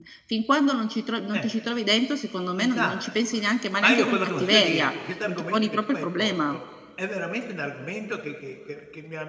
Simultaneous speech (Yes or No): Yes